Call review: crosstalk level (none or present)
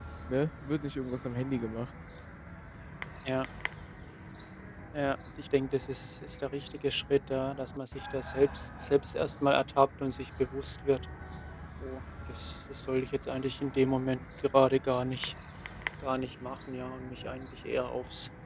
none